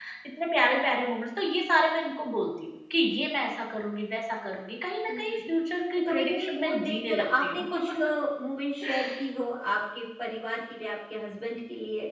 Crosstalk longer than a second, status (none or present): present